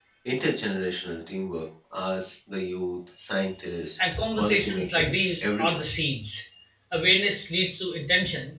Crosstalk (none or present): present